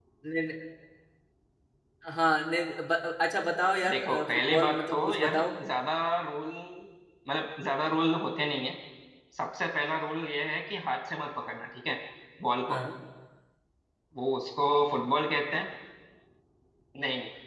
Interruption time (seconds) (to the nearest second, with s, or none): 4 s